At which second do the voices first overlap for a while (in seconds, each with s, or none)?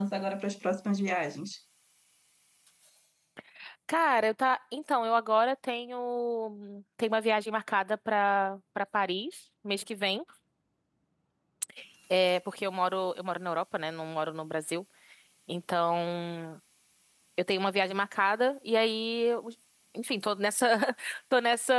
none